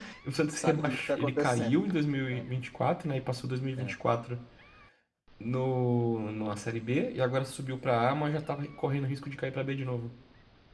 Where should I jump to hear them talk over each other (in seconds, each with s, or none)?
0.5 s